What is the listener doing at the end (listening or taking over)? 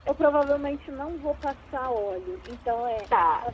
listening